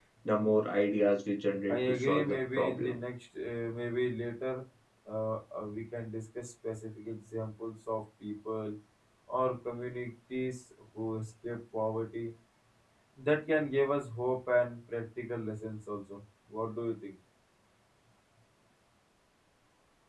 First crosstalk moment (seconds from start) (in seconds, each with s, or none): 1.7 s